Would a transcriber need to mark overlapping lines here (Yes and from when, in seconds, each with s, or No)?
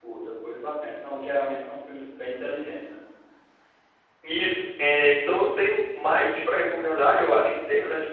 No